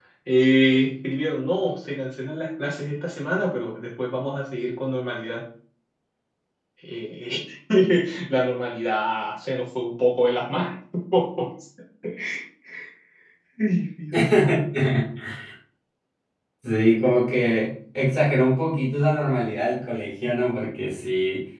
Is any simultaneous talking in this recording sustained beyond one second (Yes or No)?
No